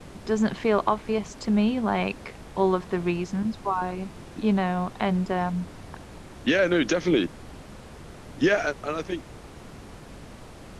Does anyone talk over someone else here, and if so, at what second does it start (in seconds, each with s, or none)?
none